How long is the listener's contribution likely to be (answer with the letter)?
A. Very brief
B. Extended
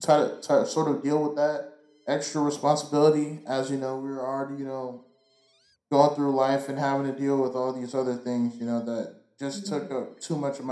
A